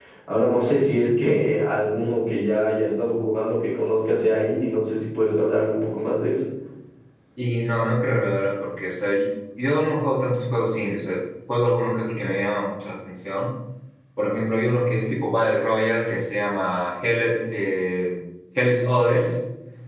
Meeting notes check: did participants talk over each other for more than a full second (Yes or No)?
No